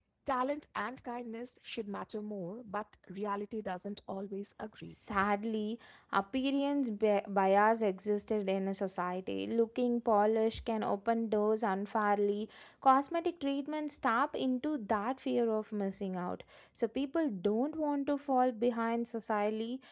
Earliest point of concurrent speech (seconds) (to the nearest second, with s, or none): none